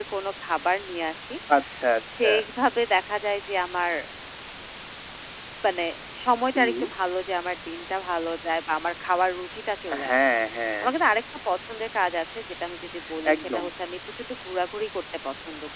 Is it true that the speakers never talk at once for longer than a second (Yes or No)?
Yes